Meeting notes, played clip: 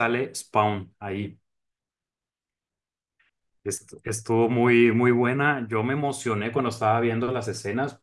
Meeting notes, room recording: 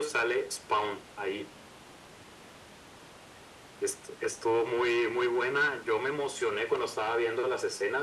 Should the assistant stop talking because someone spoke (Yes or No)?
No